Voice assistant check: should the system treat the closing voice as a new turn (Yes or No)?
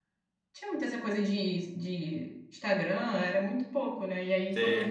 No